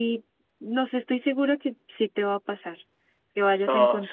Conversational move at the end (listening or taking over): taking over